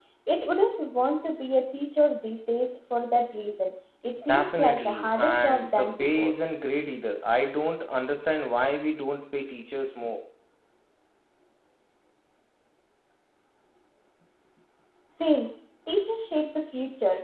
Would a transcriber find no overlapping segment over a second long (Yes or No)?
No